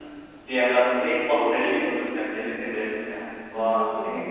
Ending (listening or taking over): taking over